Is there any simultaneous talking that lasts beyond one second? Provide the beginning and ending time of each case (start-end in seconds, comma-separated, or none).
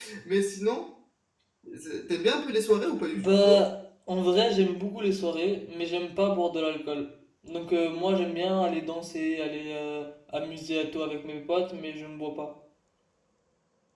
none